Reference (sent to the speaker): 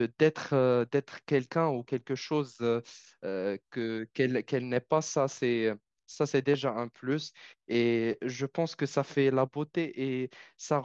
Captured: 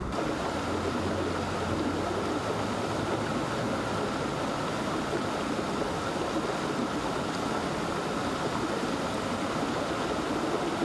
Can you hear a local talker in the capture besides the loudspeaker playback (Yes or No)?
No